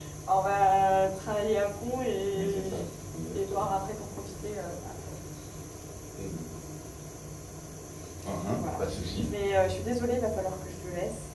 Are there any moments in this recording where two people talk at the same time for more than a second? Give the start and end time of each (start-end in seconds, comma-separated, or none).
none